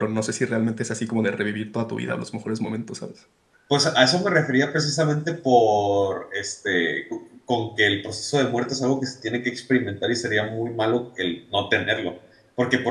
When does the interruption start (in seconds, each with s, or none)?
none